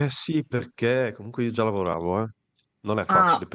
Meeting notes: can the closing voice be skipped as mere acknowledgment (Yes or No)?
Yes